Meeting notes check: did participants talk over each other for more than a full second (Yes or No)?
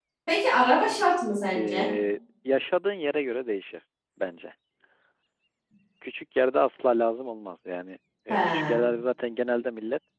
No